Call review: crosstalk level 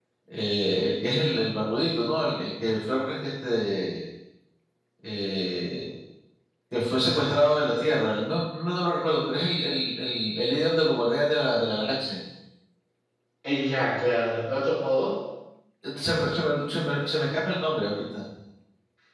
none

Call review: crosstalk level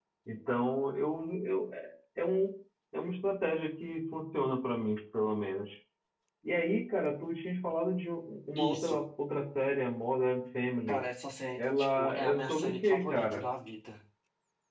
present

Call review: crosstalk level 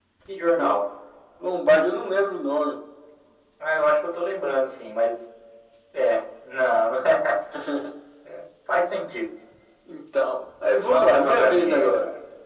present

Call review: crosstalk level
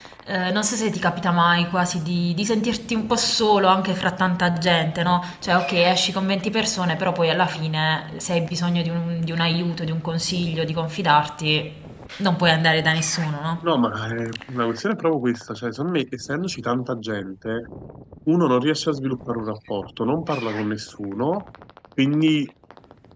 none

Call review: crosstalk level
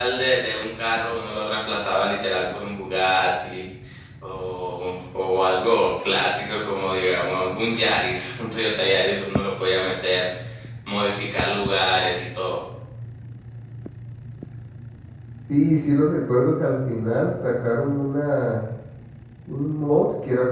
none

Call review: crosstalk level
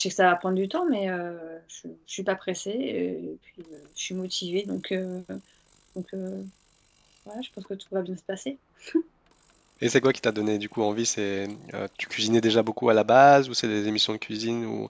none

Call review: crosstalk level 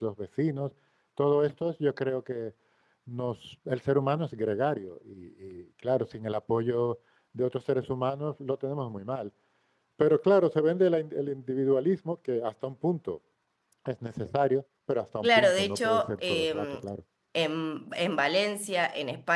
present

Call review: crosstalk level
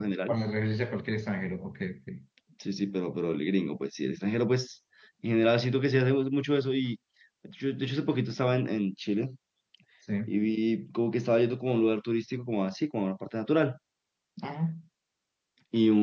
none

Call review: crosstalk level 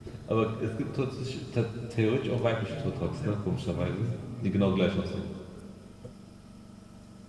present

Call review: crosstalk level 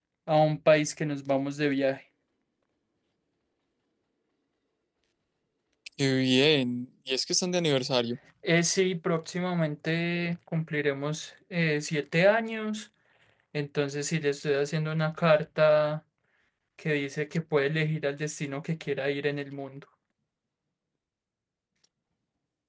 none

